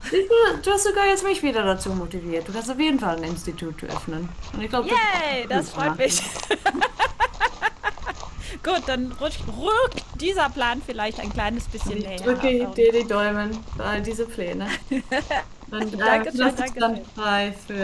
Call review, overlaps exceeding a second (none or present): present